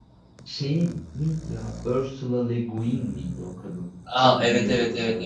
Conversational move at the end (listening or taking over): taking over